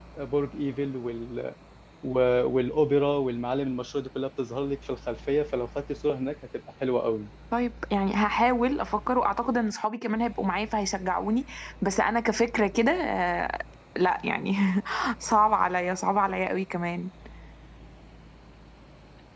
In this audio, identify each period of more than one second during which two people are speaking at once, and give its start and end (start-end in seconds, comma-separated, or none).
none